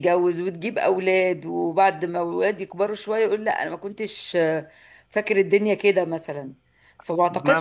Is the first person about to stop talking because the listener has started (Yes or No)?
No